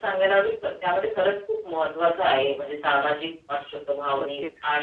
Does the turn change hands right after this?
No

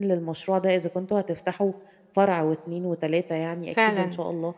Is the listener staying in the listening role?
No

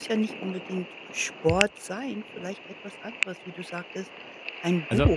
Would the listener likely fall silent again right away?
Yes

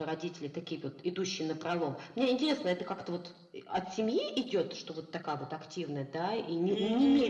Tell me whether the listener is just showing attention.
No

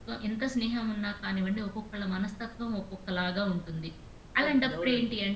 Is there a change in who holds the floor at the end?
No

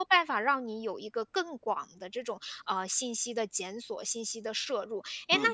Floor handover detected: No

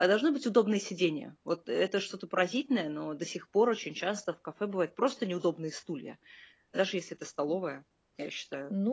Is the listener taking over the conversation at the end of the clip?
Yes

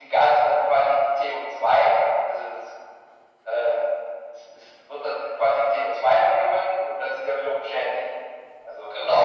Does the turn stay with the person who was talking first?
No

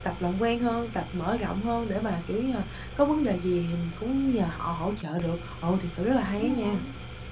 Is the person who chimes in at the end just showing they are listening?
No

